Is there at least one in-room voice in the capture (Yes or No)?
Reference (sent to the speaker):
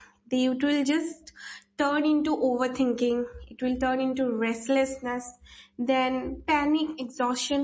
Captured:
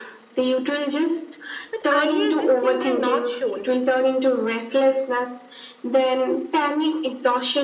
Yes